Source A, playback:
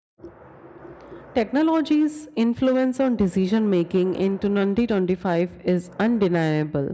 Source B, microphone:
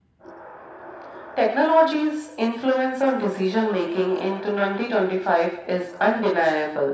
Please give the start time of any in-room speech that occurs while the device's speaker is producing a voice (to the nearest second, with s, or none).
none